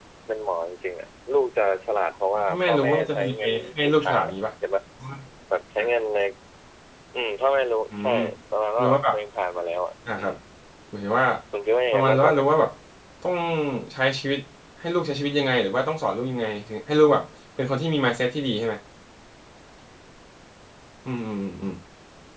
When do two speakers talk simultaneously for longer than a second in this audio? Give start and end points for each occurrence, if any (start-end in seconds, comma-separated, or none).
2.3-4.3